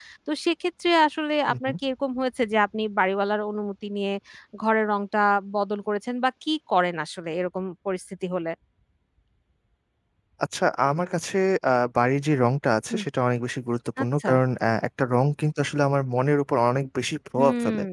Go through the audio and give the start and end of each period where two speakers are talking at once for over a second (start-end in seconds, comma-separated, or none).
none